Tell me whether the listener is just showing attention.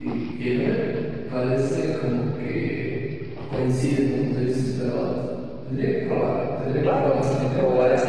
No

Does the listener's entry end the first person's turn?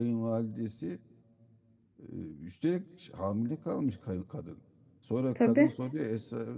No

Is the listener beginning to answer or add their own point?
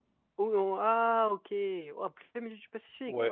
Yes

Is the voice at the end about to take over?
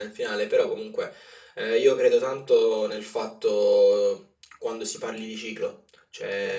No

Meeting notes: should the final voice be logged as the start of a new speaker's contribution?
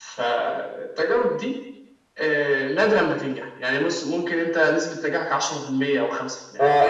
Yes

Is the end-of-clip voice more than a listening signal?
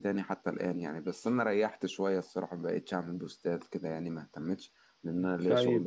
Yes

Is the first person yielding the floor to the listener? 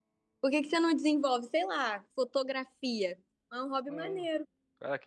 Yes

